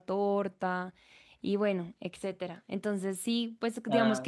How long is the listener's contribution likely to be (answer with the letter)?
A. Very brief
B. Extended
A